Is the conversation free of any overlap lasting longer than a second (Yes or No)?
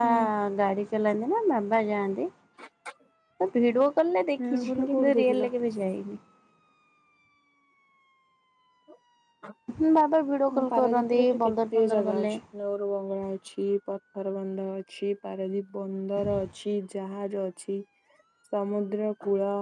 No